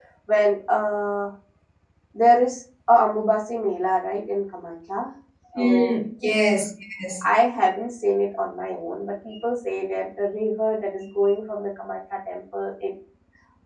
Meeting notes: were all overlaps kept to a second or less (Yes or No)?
Yes